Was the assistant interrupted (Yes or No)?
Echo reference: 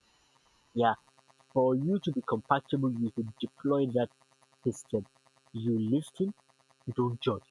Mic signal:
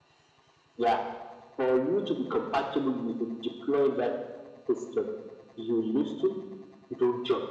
No